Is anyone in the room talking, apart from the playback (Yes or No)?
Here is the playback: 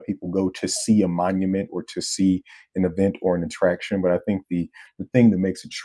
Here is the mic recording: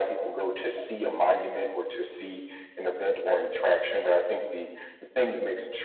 No